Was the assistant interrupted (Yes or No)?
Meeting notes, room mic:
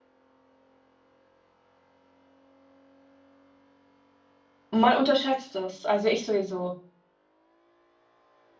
Yes